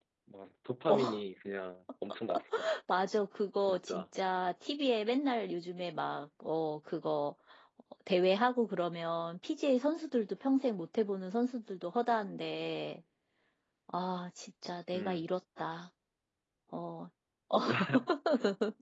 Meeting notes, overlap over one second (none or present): none